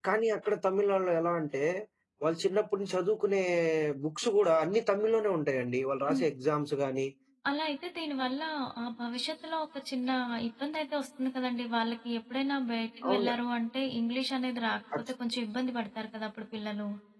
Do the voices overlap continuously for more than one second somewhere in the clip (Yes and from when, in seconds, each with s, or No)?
No